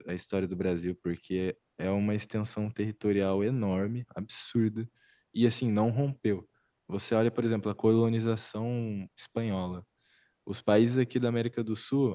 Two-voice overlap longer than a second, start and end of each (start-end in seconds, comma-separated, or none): none